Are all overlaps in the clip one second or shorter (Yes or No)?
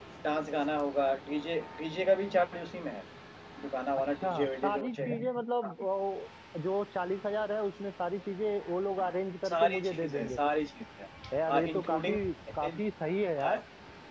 No